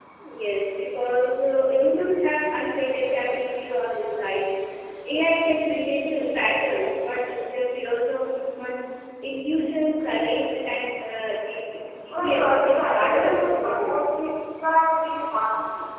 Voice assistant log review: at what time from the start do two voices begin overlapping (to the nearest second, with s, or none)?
12 s